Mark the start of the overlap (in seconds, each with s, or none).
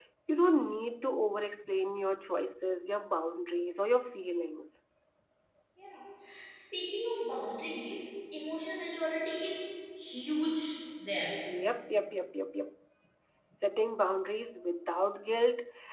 none